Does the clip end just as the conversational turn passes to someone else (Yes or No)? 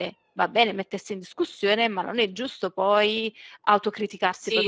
Yes